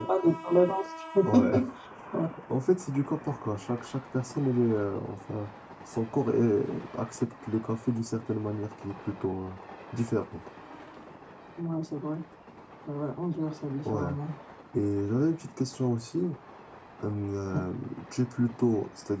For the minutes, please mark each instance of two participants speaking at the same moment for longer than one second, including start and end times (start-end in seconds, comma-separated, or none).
none